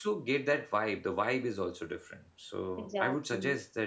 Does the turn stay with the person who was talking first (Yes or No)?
Yes